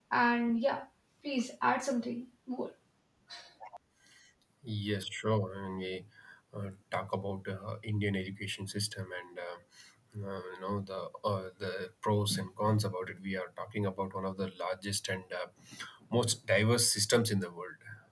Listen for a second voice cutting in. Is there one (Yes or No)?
No